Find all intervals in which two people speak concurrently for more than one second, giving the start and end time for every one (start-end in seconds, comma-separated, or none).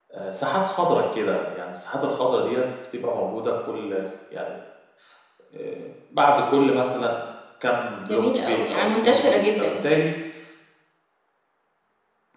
8.1-9.7